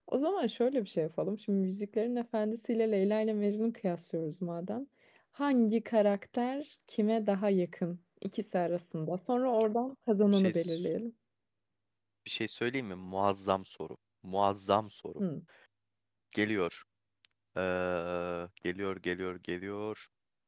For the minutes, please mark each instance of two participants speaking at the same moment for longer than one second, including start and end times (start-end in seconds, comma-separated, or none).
none